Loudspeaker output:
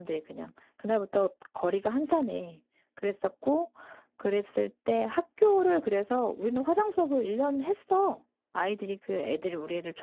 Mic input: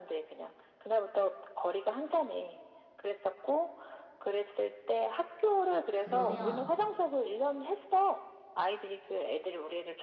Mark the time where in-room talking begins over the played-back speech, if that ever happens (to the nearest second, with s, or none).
6 s